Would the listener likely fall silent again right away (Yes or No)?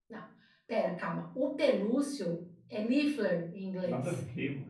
No